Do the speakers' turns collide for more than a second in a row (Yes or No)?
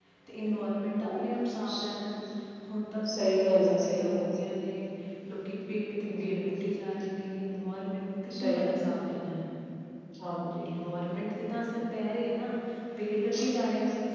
Yes